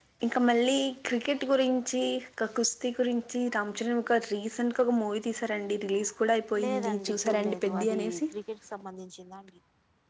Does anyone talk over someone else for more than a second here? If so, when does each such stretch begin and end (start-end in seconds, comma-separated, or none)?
6.6-8.2